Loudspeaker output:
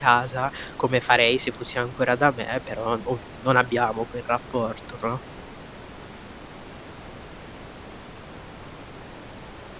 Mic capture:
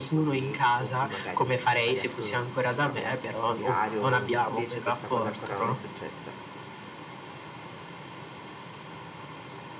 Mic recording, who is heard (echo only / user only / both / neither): both